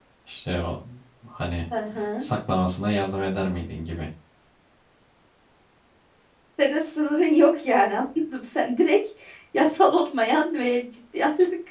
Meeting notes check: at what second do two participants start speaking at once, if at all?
none

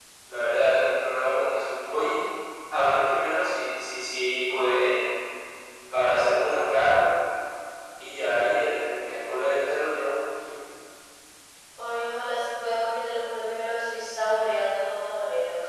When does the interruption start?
none

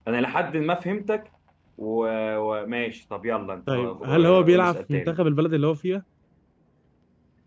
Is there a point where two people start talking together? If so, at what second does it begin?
3.7 s

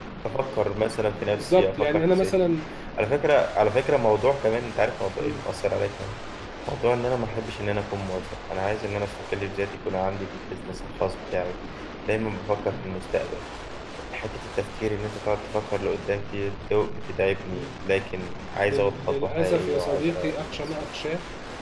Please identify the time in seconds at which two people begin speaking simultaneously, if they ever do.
1.3 s

